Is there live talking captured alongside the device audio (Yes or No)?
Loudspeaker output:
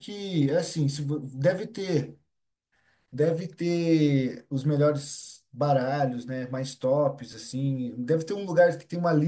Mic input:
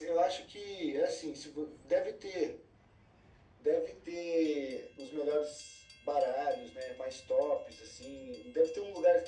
No